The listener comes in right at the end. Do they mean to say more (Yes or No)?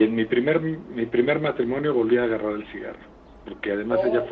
No